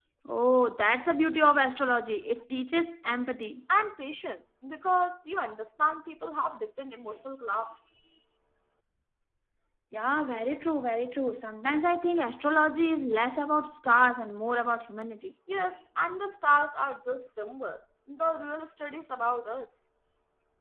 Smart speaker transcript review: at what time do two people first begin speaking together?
none

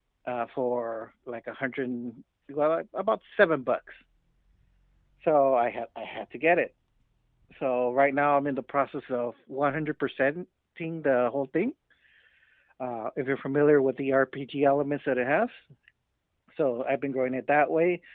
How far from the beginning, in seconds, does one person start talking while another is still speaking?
none

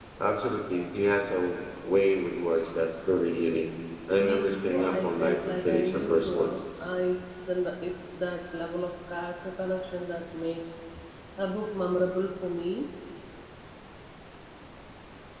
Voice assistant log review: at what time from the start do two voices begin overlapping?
4 s

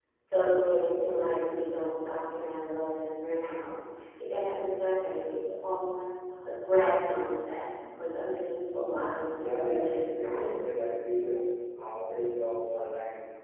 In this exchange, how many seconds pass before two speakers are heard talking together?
9 s

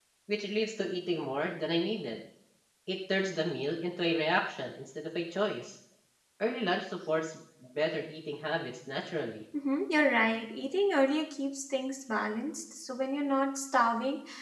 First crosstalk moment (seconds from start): none

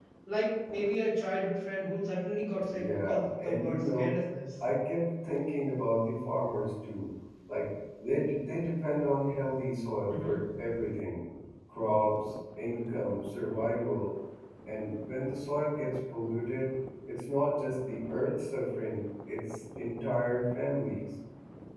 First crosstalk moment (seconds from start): 3 s

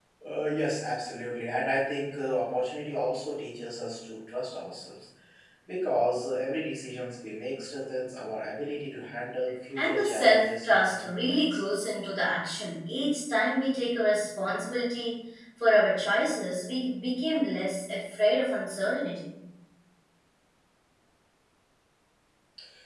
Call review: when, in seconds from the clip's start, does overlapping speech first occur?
10 s

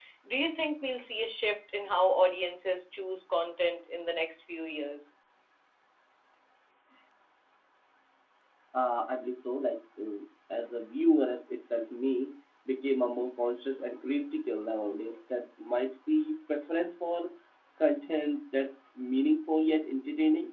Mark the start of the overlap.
none

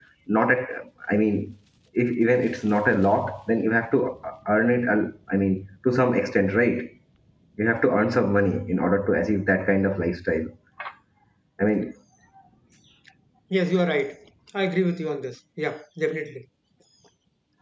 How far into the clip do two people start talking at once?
none

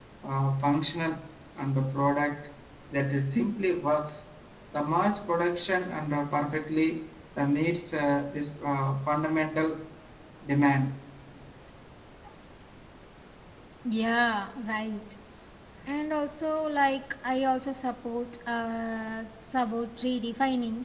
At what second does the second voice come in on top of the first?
none

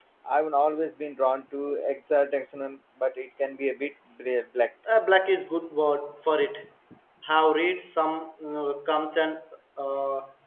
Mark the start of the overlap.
none

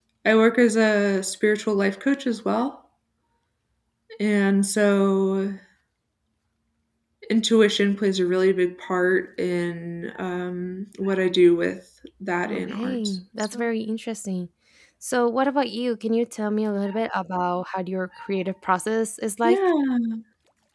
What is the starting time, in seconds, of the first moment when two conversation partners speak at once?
12 s

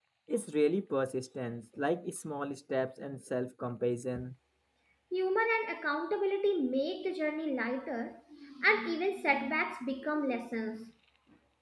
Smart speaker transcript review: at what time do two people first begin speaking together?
none

